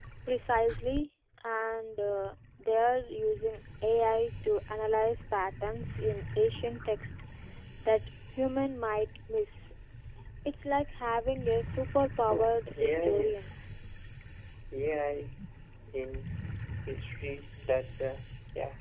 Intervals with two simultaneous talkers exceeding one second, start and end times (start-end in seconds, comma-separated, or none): 12.3-13.5